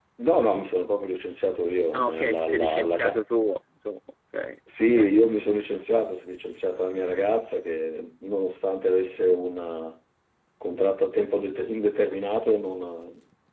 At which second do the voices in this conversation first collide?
1.9 s

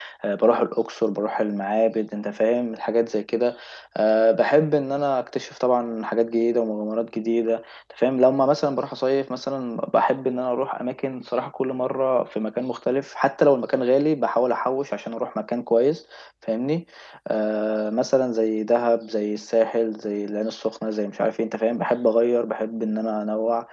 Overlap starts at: none

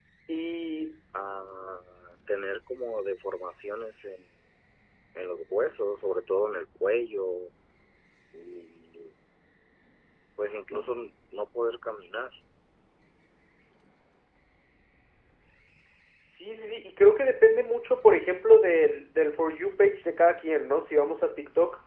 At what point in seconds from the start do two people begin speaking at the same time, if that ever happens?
none

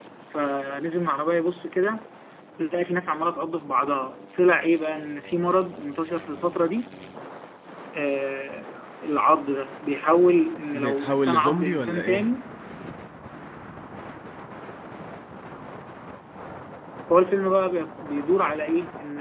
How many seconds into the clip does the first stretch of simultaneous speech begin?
10.7 s

